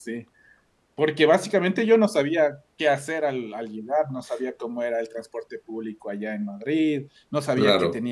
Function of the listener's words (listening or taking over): listening